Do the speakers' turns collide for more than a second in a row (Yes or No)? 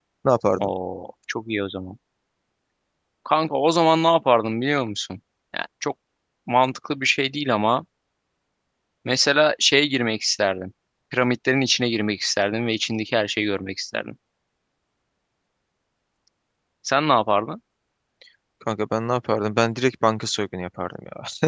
No